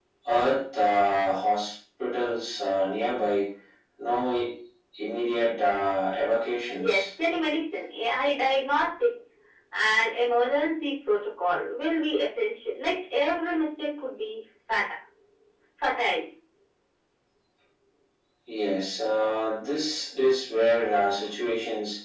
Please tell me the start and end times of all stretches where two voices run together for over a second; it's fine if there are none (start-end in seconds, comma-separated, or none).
none